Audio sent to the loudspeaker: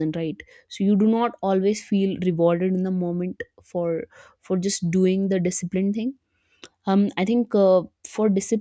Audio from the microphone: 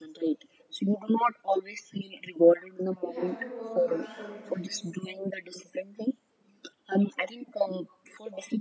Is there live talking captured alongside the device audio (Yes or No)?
Yes